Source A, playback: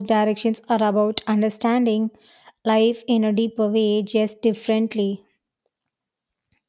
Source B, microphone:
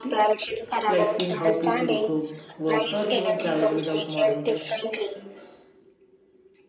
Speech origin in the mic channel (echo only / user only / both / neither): both